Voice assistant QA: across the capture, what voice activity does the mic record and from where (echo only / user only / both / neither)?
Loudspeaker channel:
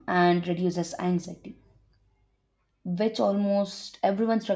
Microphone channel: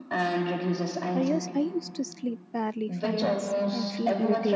both